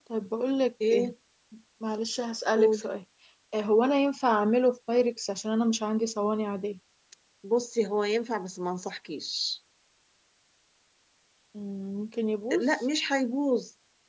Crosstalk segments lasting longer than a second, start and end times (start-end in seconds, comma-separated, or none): none